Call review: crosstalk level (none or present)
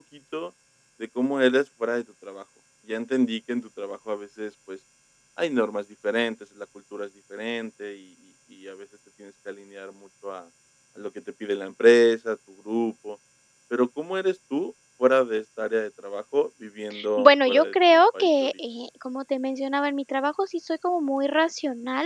present